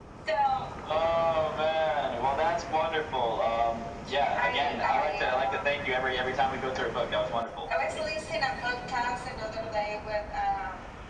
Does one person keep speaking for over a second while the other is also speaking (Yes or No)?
Yes